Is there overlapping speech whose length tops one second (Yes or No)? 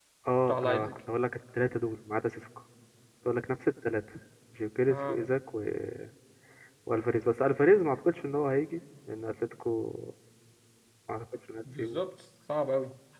No